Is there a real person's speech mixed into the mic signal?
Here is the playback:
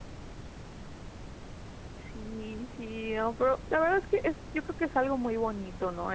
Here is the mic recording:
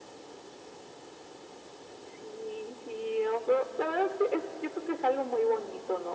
No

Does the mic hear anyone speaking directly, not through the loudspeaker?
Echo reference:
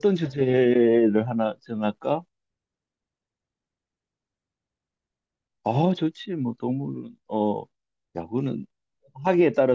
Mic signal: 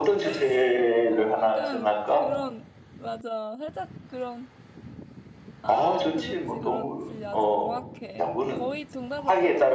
Yes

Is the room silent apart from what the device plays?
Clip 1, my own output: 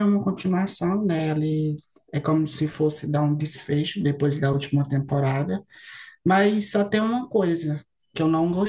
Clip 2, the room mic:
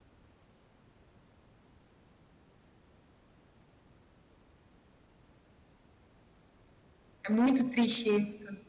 No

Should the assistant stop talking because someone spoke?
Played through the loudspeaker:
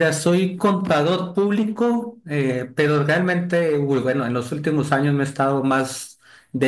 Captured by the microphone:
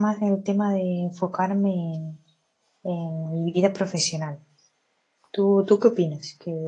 Yes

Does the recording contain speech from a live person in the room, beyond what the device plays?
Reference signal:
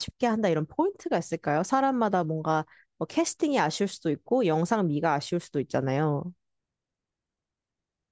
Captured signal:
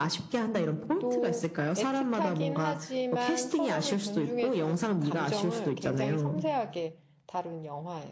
Yes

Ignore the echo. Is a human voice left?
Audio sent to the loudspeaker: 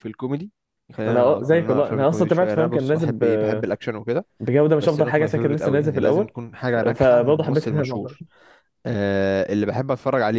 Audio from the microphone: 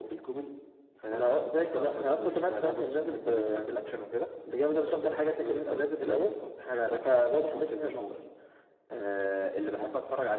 No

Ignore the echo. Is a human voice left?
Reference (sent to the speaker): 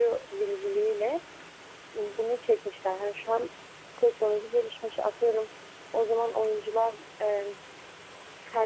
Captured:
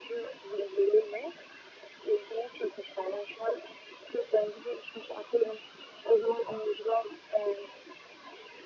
No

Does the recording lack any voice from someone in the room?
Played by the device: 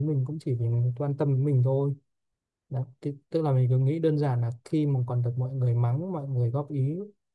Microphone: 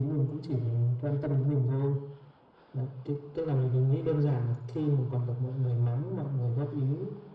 Yes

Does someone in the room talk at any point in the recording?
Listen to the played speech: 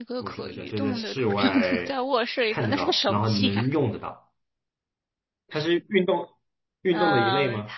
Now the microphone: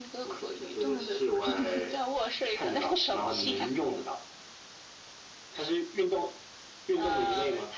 No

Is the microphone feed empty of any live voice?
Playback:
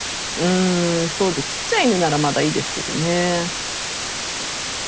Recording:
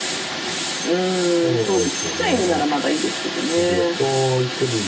No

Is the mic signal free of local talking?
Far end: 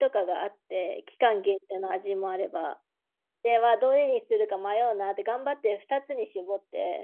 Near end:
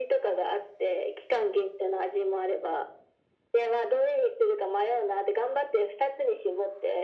Yes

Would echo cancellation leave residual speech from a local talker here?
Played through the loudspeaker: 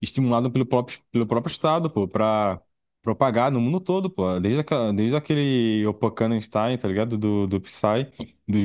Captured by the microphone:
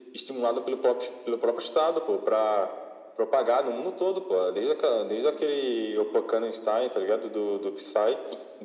No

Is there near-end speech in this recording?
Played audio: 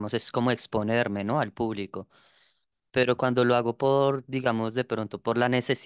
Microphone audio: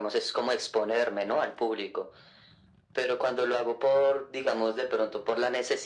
No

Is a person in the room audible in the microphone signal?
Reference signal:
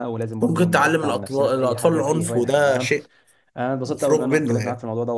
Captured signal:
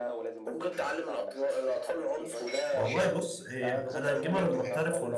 Yes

